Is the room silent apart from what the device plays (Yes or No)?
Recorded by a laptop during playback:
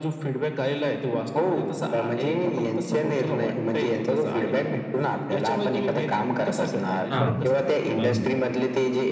No